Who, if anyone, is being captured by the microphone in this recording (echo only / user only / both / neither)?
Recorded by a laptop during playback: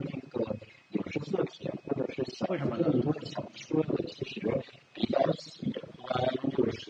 both